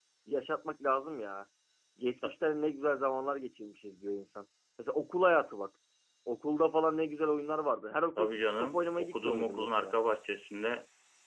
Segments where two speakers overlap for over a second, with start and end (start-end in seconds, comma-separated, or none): 8.2-10.0